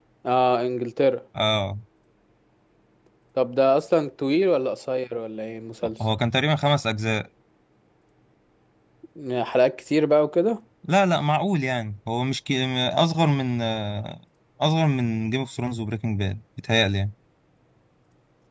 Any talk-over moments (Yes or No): No